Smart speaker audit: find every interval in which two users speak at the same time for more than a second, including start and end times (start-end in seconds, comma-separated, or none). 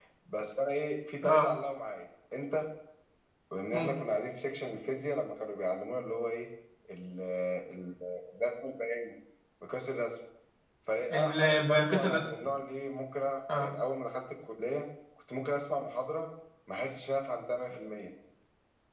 11.1-12.3